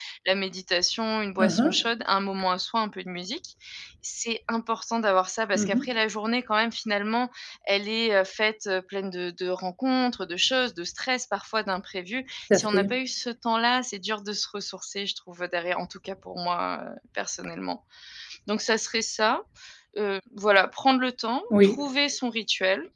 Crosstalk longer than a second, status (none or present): none